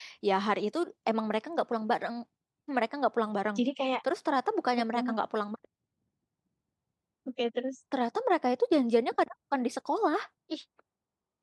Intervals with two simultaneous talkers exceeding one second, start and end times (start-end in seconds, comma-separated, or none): none